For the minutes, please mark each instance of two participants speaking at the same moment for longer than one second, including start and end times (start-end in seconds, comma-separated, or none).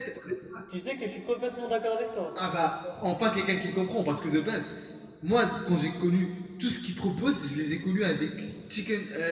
none